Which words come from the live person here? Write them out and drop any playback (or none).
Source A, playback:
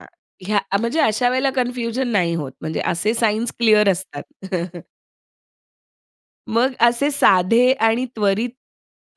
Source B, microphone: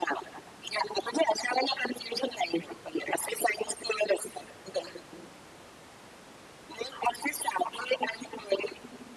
none